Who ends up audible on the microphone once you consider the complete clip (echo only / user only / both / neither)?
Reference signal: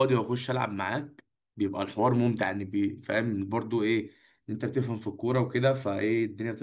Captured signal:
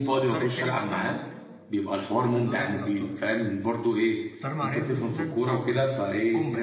both